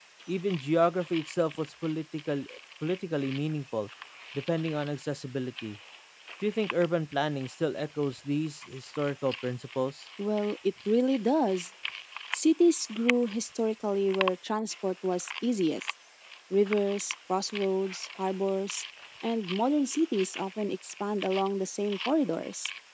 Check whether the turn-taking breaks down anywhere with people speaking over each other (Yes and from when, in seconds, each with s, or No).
No